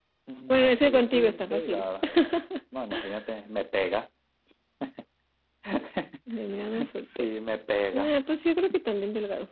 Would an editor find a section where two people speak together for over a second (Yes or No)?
Yes